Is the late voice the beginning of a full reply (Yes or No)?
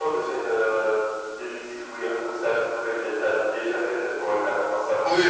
Yes